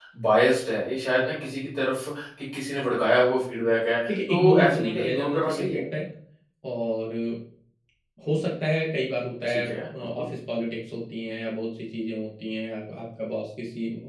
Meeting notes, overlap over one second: present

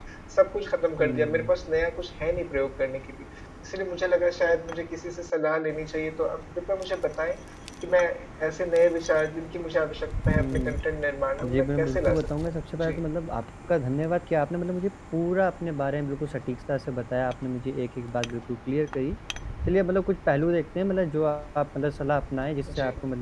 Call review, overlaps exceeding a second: present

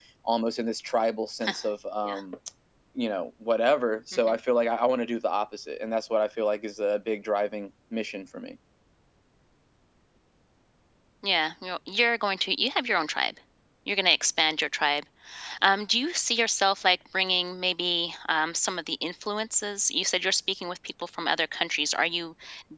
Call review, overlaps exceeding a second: none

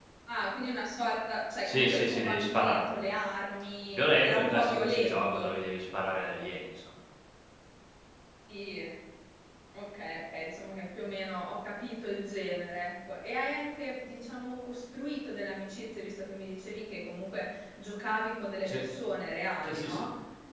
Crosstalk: present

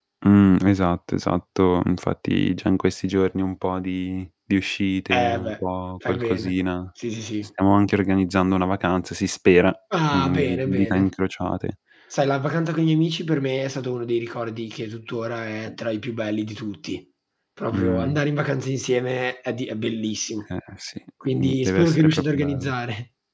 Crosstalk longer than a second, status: present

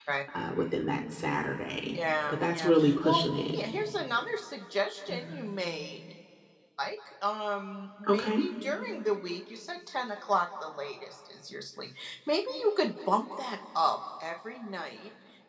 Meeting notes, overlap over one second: present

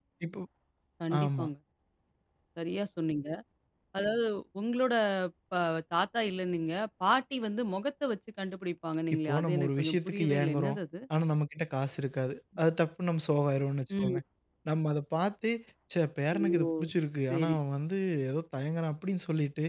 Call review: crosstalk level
present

